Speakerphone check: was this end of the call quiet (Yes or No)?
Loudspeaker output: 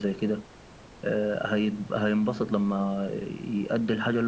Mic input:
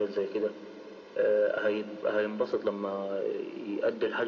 Yes